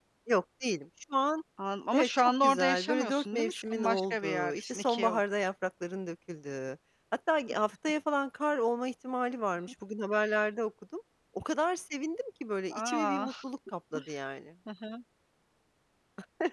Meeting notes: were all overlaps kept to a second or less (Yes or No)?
No